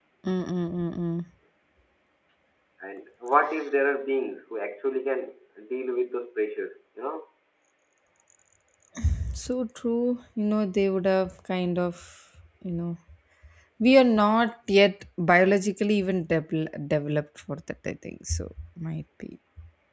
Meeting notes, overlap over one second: none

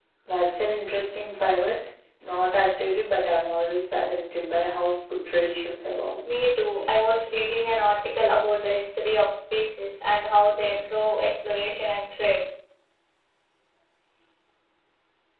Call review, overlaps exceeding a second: none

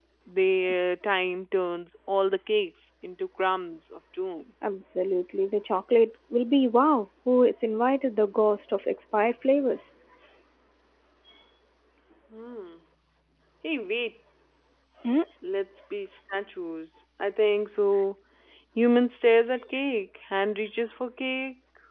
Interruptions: none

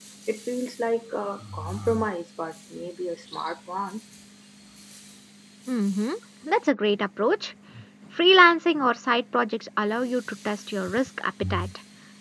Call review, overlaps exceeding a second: none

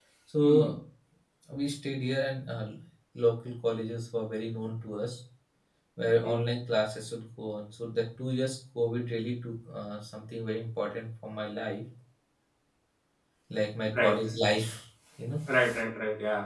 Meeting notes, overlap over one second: none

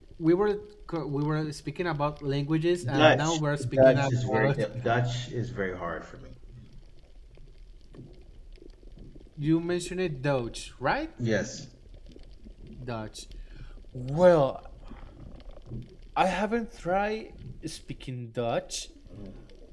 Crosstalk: present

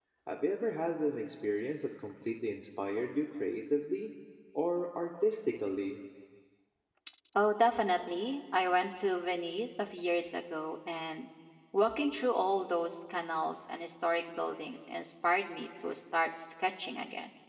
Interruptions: none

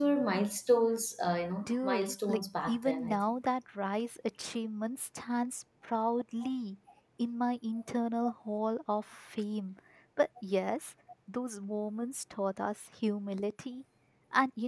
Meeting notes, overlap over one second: present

